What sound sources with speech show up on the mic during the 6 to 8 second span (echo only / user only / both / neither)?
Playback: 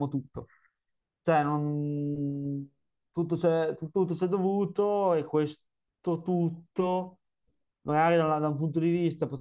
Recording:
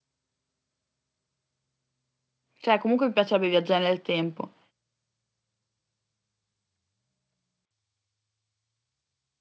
neither